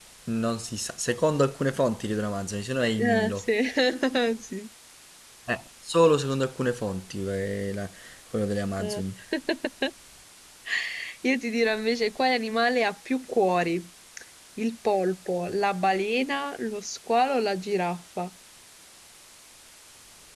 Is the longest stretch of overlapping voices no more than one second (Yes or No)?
Yes